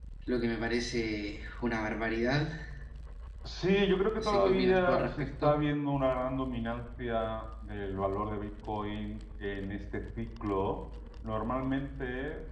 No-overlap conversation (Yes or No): No